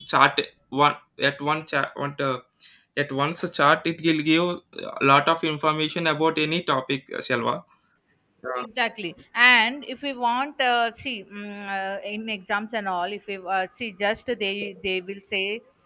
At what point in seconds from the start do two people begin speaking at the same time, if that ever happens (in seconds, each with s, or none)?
none